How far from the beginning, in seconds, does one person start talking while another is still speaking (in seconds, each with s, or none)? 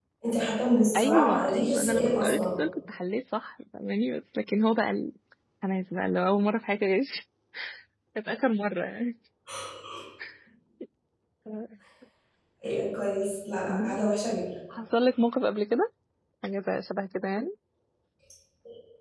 1.0 s